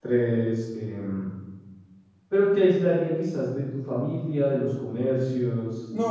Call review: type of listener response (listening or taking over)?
taking over